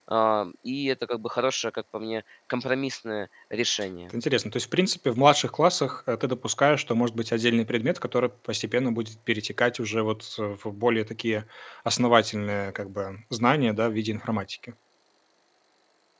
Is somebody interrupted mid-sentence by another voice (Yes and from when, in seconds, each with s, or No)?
No